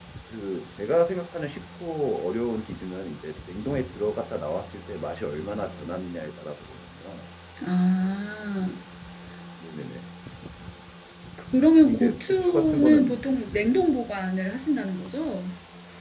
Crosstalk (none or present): present